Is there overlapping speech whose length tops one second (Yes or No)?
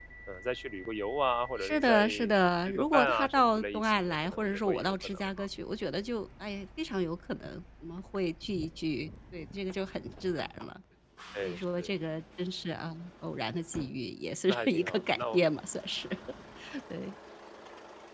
Yes